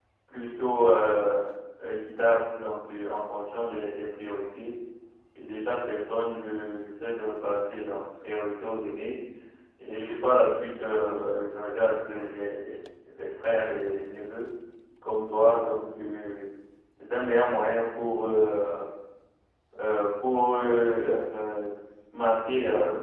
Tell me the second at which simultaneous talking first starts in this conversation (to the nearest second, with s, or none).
none